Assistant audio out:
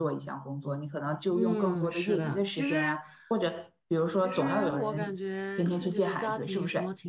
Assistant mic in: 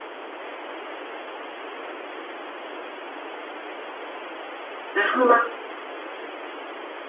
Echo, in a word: none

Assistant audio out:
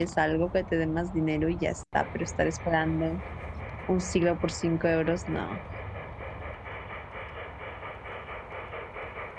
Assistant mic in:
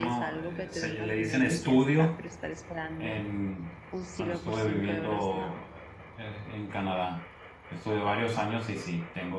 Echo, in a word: present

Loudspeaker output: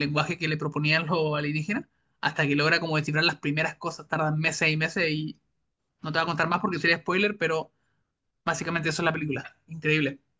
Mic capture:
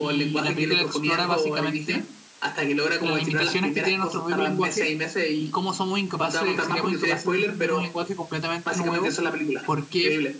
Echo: present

